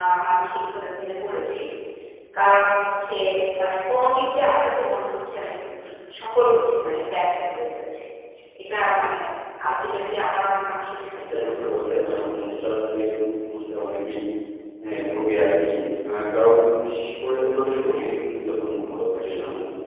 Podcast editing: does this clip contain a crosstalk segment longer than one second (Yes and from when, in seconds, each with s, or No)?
Yes, from 11.3 s